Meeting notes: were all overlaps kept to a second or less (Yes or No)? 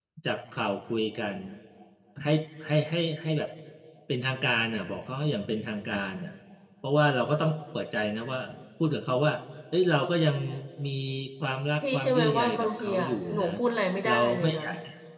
No